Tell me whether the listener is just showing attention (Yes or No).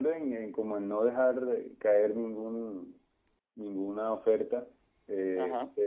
Yes